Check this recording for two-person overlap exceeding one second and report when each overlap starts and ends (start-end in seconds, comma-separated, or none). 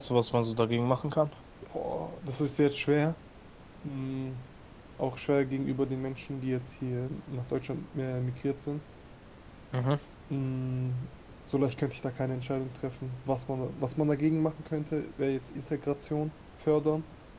none